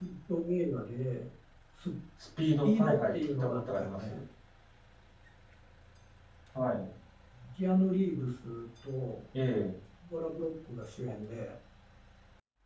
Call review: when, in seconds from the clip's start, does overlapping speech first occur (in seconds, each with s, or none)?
2.6 s